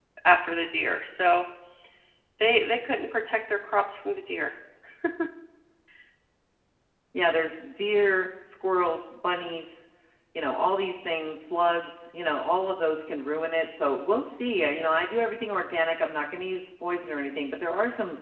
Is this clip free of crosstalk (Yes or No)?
Yes